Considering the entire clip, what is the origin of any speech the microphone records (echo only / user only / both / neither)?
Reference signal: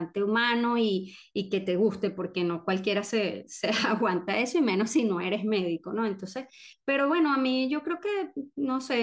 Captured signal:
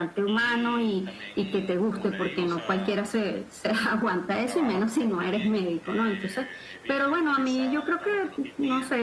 both